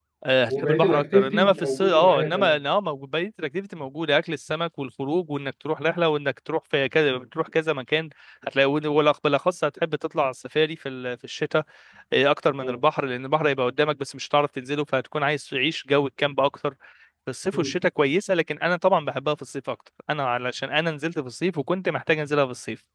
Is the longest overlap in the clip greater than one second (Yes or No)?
Yes